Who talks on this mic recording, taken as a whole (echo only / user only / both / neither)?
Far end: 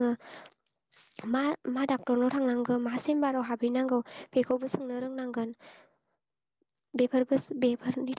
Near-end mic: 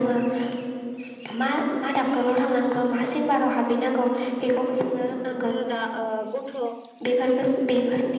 both